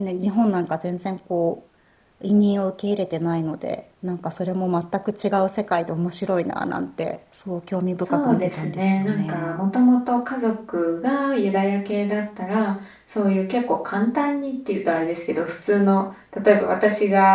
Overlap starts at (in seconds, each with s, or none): 8.0 s